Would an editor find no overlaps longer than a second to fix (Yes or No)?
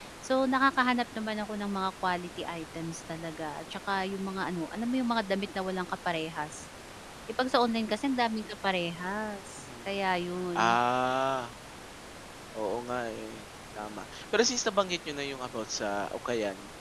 Yes